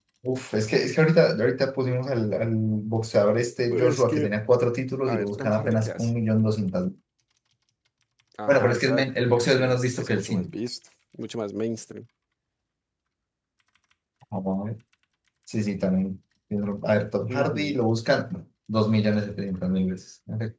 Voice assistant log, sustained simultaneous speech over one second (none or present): present